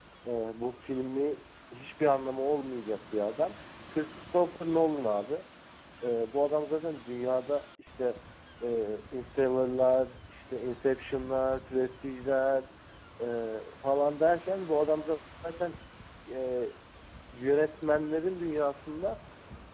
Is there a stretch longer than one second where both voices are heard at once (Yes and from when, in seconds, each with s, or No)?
No